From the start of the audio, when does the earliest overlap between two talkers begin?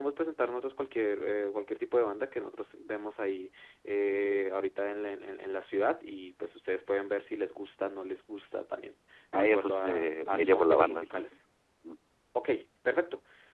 9.3 s

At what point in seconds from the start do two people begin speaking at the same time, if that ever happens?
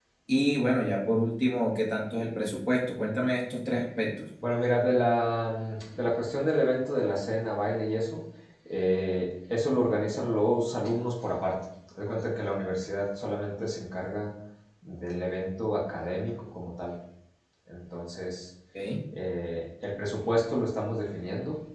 none

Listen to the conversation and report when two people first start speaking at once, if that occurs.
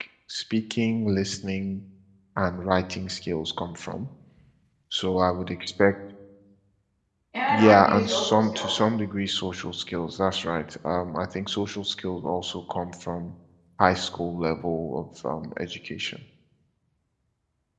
7.5 s

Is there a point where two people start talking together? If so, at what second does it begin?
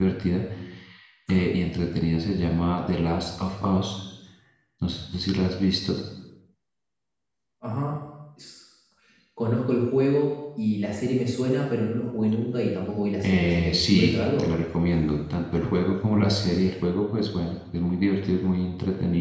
13.2 s

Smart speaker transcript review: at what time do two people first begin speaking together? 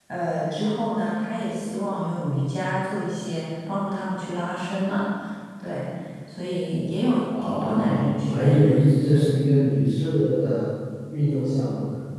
7.3 s

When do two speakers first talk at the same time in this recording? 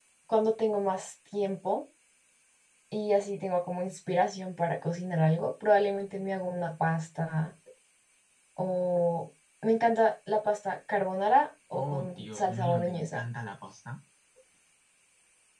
11.7 s

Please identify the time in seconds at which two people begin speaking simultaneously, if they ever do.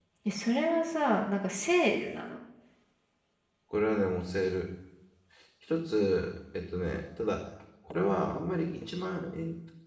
none

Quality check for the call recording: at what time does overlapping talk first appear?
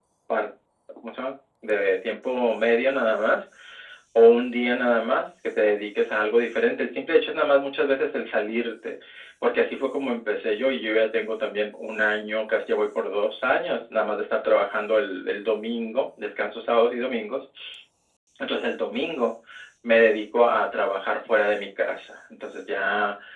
none

